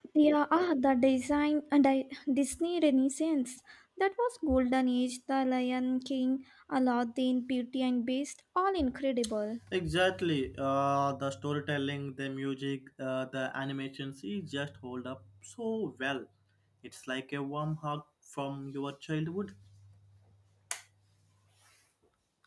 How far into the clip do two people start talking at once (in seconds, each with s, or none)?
none